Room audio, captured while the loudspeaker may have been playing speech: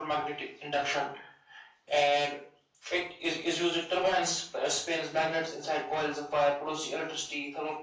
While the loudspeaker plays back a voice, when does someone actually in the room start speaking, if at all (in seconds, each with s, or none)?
none